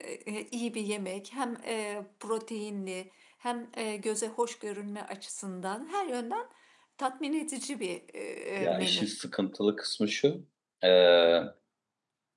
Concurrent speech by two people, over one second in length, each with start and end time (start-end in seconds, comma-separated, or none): none